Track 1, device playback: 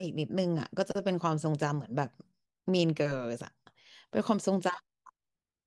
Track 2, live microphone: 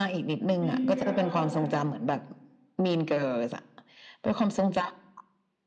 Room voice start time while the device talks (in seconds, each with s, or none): 0.5 s